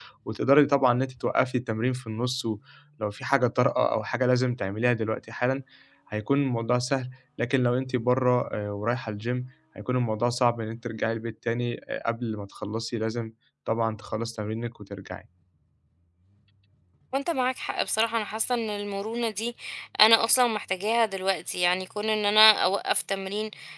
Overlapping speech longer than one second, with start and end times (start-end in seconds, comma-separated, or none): none